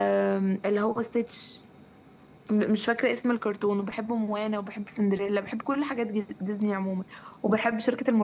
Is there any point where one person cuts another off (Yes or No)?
No